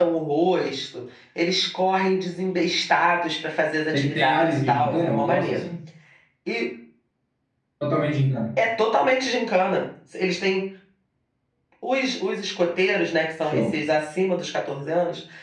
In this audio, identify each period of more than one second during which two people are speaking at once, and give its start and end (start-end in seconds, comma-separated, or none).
3.9-5.6